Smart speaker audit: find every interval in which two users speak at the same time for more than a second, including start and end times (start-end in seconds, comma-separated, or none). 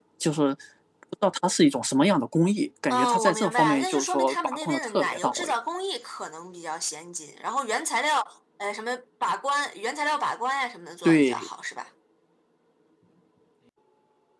2.9-5.5